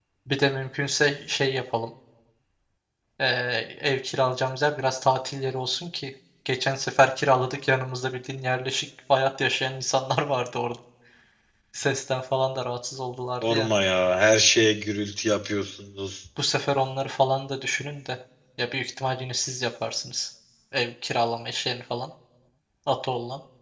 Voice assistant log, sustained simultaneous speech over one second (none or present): none